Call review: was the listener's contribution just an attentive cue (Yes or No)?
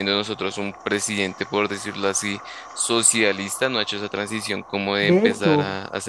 No